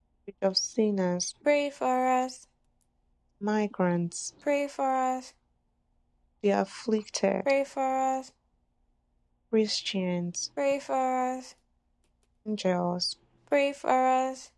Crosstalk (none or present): none